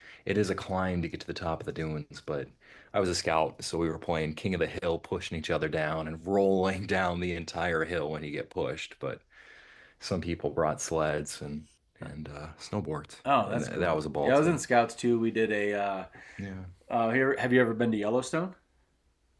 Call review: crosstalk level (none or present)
present